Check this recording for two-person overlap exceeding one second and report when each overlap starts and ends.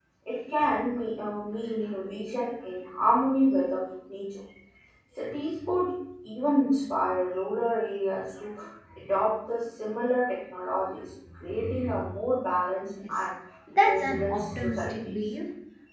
13.8-15.2

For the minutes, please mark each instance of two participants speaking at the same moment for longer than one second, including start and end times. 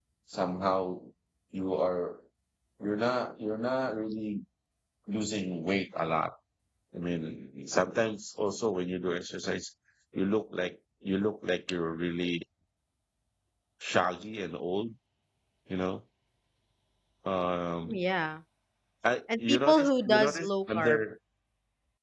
19.4-21.0

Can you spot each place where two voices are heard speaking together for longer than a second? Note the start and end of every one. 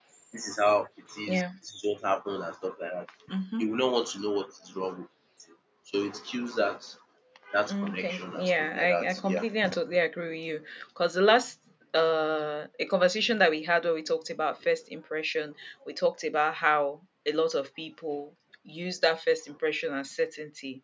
7.7-9.4

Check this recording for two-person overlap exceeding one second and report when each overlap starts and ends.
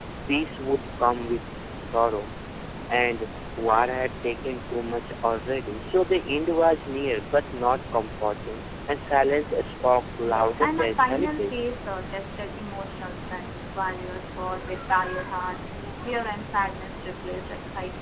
10.2-11.8

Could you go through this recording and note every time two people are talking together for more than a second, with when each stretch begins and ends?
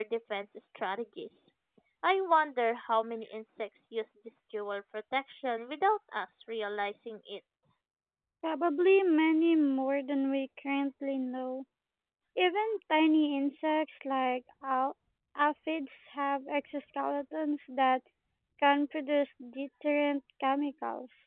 none

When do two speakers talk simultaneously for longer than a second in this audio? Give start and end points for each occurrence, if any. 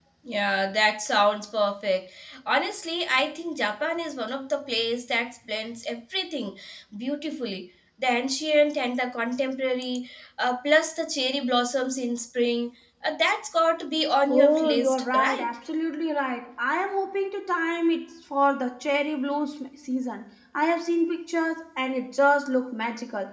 14.3-15.5

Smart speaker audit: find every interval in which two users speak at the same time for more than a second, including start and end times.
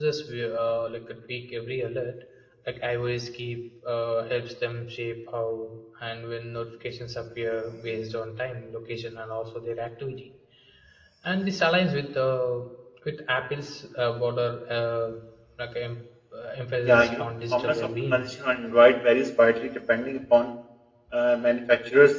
16.8-18.2

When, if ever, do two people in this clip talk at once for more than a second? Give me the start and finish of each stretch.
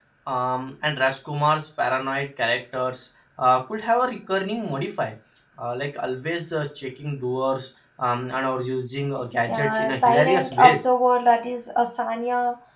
9.5-10.8

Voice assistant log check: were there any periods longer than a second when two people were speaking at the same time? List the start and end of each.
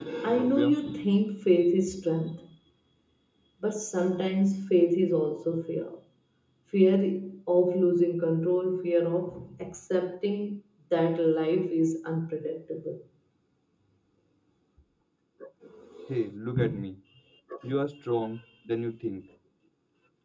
none

